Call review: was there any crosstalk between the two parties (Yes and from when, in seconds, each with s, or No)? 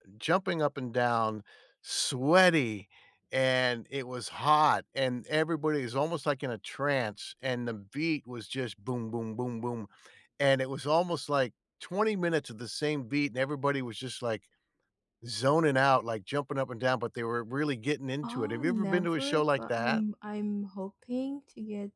Yes, from 18.2 s